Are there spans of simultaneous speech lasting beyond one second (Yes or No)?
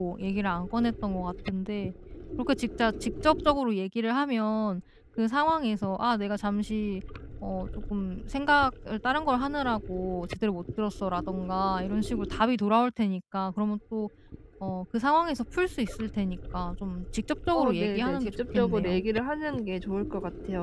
Yes